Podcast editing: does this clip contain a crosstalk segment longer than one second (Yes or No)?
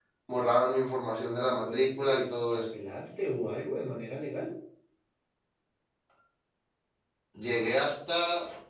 Yes